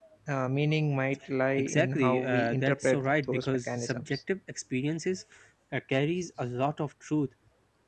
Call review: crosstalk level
present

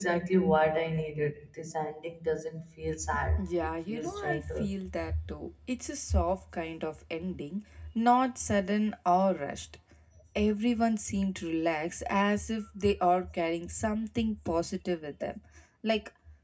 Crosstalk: present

